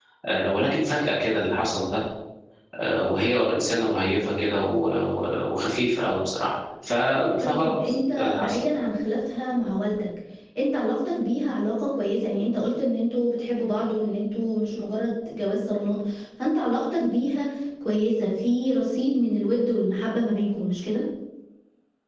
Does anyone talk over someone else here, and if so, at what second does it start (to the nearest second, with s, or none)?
7 s